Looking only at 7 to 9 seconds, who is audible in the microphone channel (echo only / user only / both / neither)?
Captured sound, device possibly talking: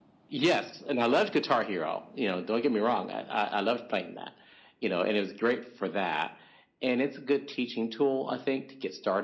echo only